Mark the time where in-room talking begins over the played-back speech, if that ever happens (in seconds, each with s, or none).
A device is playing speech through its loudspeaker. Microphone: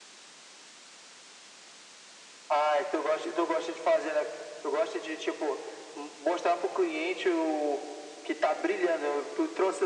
none